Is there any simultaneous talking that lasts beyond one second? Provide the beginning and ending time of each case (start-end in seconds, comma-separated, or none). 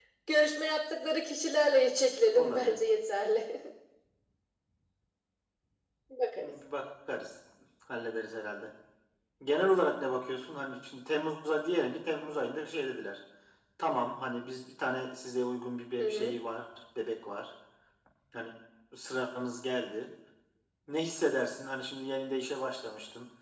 none